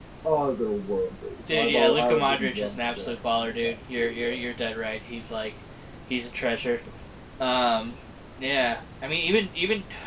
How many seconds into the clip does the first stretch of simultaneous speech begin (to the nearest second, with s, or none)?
1 s